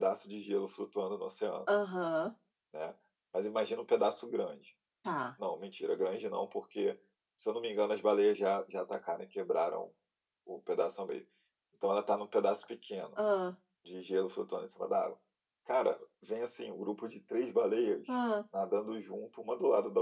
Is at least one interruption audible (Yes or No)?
No